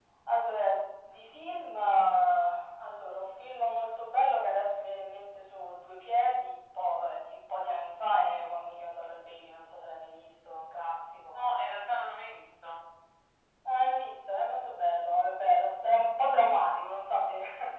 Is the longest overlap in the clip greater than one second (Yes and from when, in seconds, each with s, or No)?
No